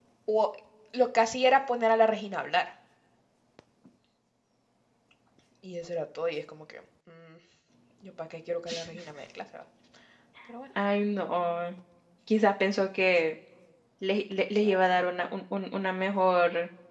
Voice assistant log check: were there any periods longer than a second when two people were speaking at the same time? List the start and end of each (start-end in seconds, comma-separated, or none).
none